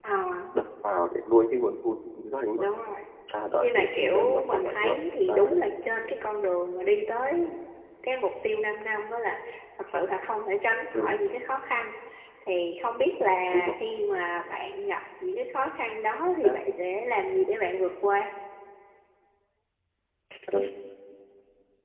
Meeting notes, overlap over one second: present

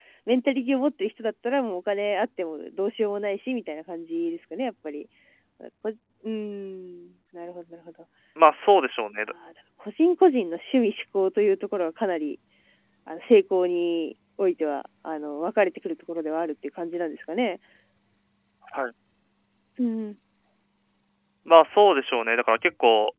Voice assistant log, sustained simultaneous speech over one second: none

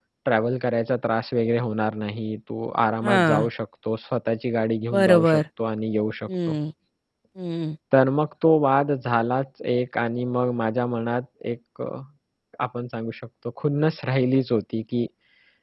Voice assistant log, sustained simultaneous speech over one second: none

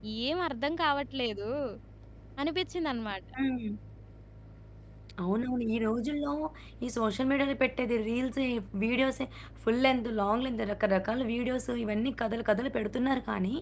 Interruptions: none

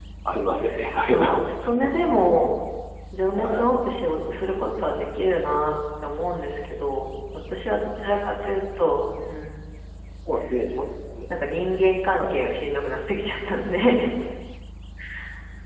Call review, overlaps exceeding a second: none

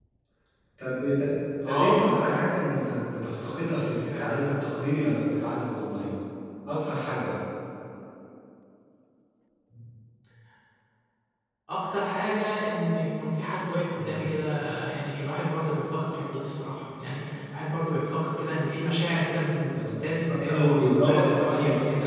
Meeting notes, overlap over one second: present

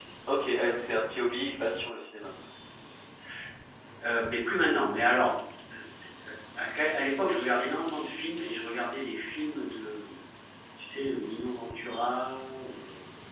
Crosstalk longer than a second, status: none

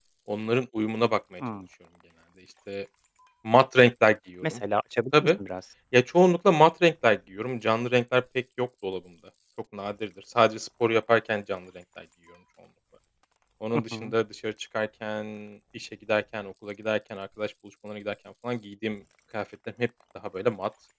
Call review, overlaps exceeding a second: none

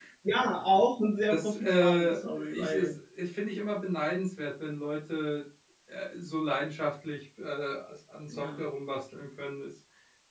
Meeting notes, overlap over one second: present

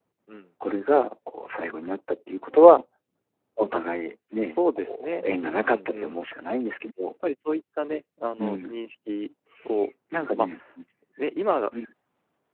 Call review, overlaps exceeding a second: present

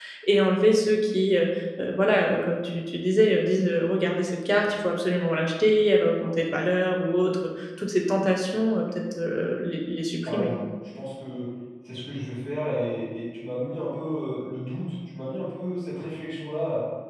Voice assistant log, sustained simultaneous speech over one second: none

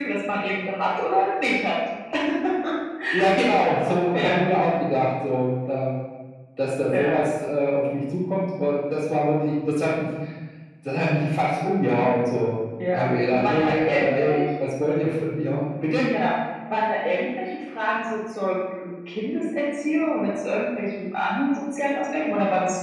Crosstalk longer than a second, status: present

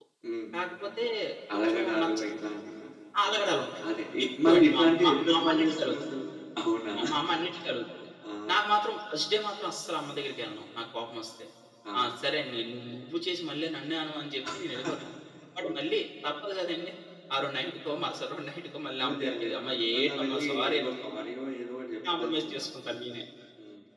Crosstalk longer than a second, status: present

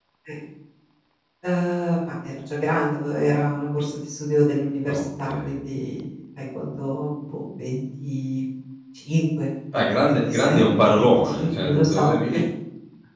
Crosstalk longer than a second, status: present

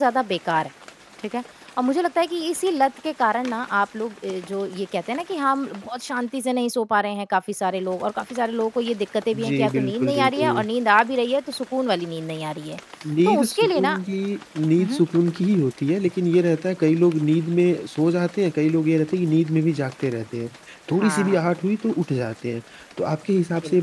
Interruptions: present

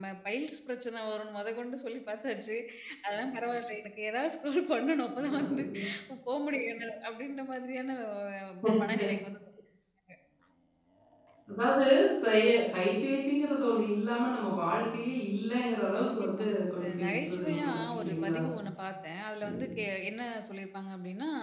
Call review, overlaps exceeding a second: present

